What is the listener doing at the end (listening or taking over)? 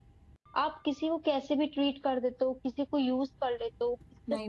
taking over